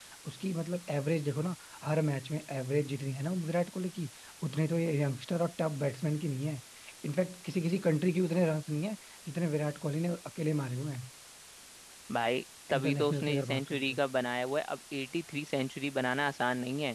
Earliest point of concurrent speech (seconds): 12.7 s

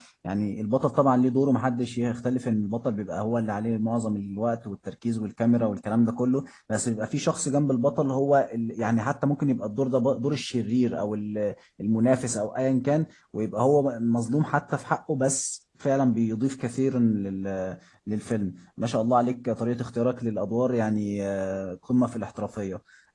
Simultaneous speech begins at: none

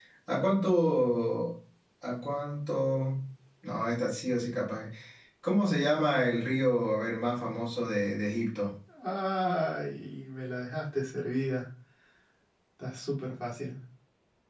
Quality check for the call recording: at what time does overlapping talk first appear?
none

